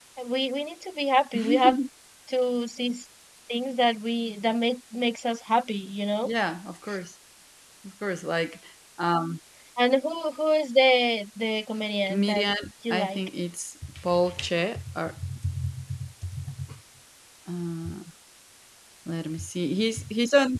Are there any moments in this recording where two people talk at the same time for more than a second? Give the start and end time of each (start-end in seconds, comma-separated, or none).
none